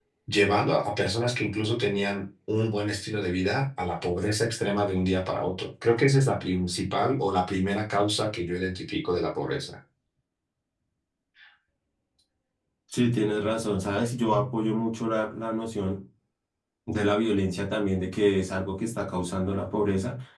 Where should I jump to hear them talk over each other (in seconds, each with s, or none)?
none